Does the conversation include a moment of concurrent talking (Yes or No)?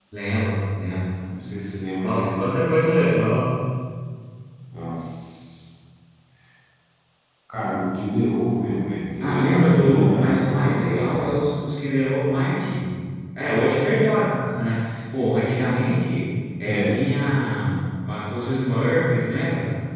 Yes